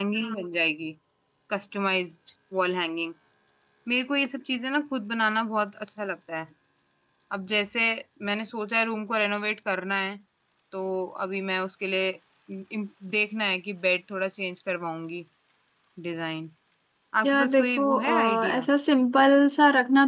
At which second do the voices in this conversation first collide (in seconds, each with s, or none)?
17.2 s